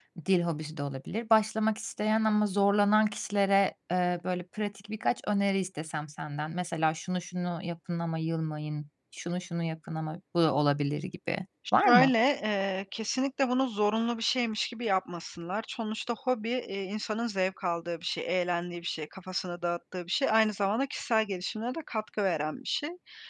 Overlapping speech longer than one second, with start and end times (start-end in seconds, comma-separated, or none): none